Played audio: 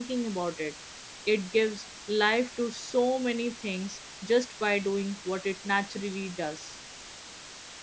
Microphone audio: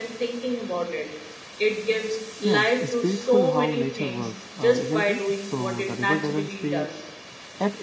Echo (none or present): present